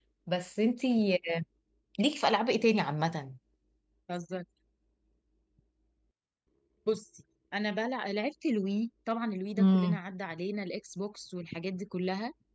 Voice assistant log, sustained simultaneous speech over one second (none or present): none